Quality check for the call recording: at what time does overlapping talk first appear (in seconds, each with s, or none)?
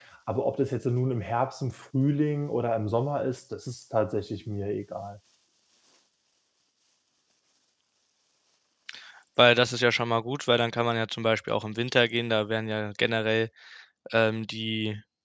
none